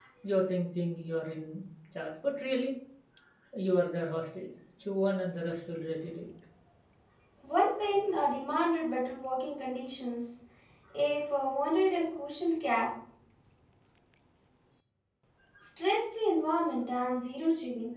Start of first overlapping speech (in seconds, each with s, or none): none